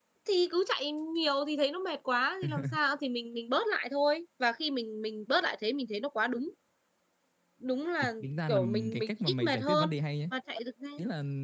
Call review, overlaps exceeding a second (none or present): present